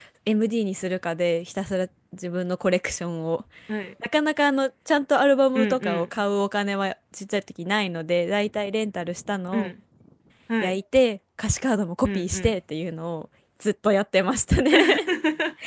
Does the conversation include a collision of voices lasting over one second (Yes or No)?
No